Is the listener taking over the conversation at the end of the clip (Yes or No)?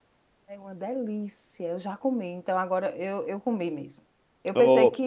No